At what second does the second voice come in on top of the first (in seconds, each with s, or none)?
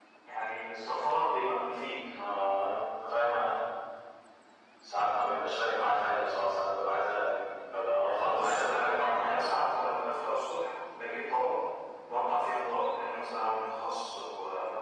8.2 s